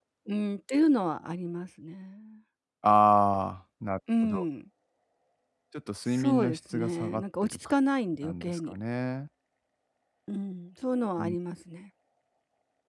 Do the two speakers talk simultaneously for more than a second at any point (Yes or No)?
Yes